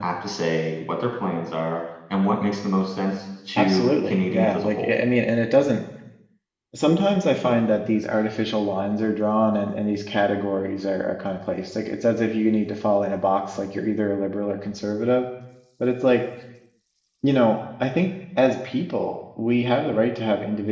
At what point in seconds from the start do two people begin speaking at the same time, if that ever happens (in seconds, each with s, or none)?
3.6 s